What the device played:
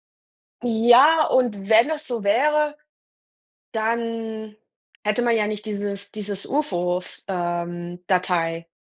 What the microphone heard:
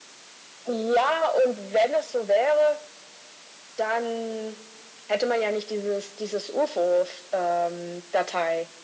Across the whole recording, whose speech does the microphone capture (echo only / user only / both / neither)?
echo only